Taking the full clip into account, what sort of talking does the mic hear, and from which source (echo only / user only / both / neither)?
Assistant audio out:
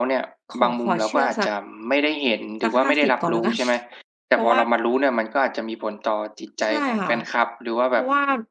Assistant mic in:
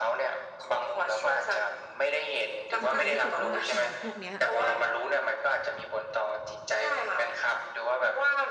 both